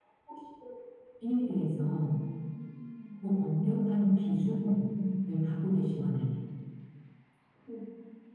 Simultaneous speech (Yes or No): Yes